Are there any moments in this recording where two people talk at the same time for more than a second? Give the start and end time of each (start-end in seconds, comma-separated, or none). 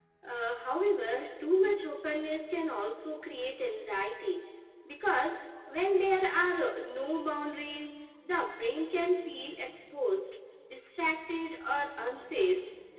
none